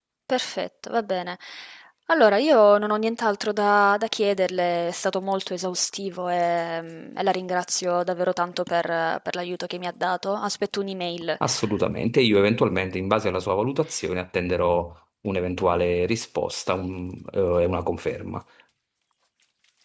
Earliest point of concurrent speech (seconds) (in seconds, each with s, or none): none